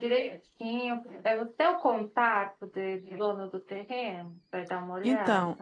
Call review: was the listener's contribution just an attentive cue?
No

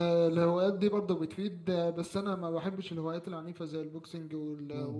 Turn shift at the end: No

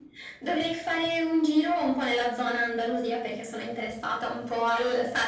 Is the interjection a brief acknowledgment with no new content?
Yes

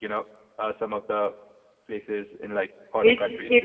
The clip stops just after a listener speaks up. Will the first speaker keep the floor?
No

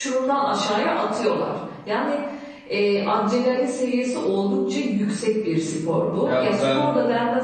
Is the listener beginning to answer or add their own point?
No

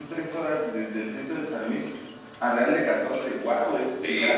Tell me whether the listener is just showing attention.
No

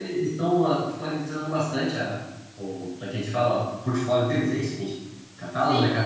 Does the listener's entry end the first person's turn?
Yes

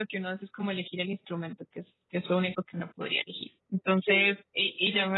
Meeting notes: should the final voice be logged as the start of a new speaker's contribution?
No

